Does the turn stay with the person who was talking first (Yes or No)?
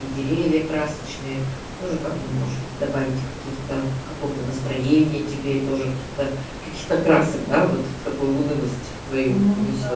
No